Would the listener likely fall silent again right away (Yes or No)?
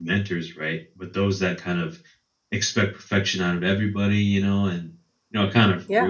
Yes